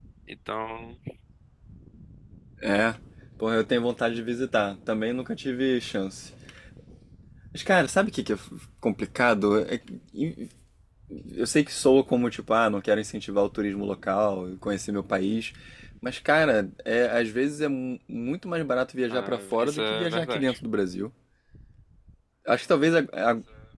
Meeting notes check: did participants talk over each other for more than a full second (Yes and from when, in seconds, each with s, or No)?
Yes, from 19.1 s